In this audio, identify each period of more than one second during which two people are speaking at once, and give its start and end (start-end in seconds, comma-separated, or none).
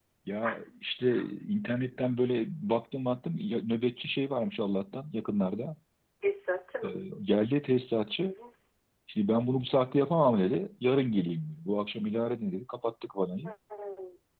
none